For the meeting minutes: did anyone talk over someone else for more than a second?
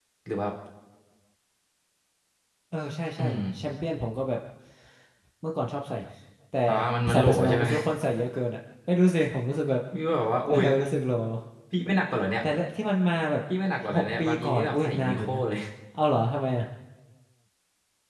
Yes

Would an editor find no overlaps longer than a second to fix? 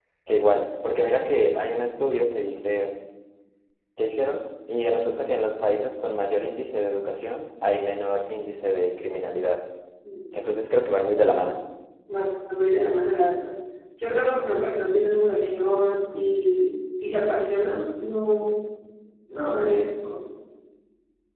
Yes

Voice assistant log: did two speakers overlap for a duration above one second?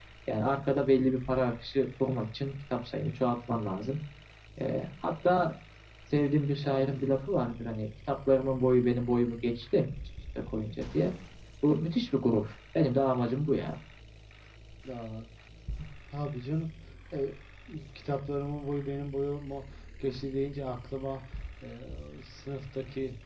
No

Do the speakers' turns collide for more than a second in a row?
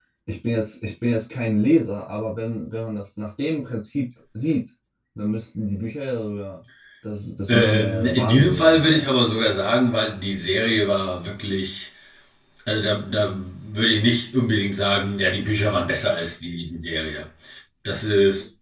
Yes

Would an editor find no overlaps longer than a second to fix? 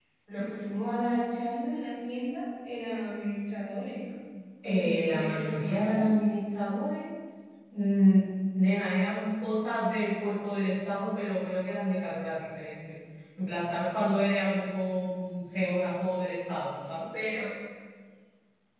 No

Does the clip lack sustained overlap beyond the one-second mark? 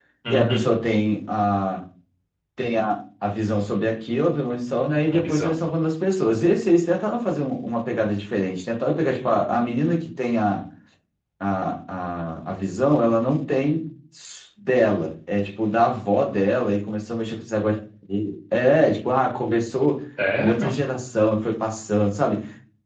Yes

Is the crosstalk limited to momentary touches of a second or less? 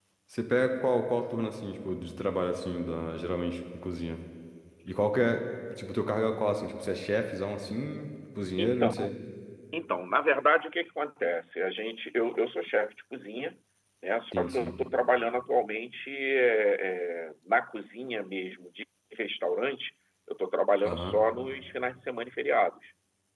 Yes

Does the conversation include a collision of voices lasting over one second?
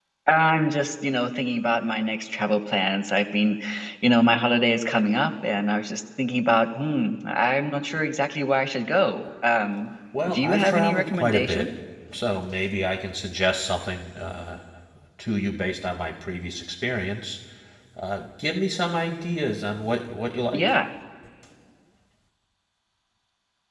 Yes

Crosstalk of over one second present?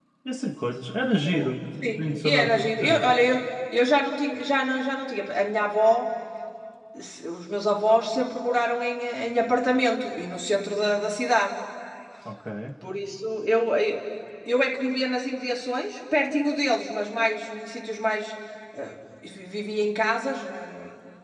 Yes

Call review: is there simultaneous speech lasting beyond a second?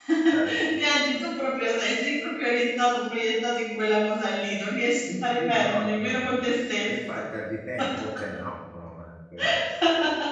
Yes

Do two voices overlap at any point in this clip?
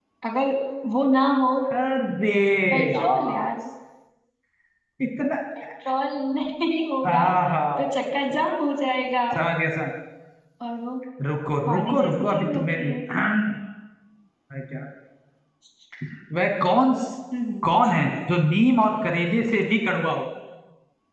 Yes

